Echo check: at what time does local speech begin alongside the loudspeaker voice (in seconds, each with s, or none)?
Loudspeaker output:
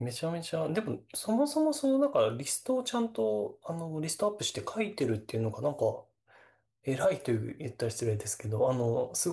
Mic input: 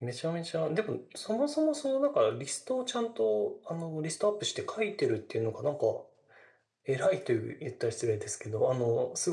none